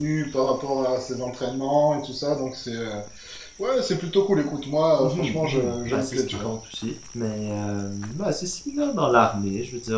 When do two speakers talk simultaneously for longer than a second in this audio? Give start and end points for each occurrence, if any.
5.0-6.5

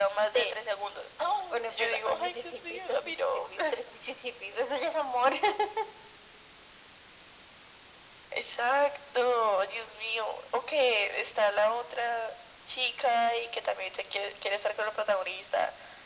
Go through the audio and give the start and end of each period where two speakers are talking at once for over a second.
1.7-3.5

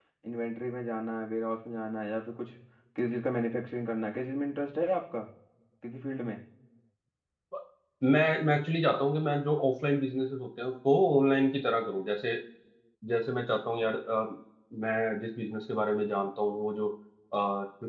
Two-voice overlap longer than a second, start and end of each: none

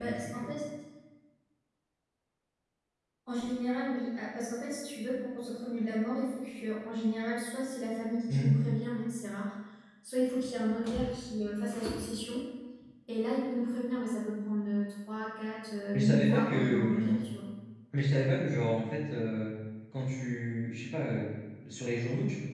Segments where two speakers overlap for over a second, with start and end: 15.9-17.2

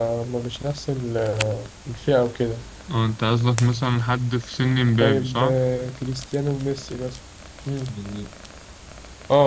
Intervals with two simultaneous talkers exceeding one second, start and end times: none

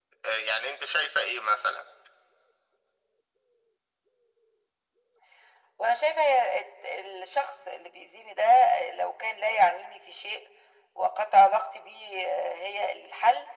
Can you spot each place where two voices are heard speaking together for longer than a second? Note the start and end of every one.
none

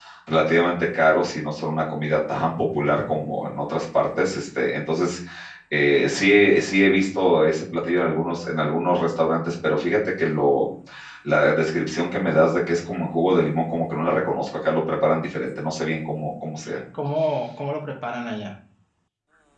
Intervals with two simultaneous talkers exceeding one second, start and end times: none

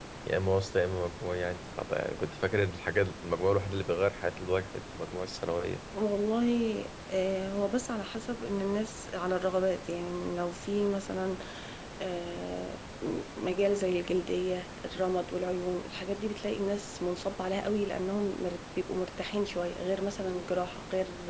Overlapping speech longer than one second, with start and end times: none

